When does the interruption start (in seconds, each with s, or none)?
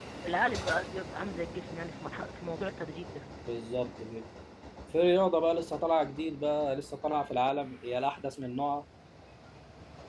none